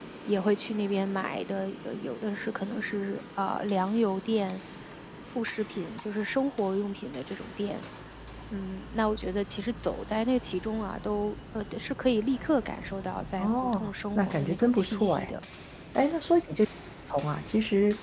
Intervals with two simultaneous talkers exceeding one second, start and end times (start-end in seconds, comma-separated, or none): 13.4-15.3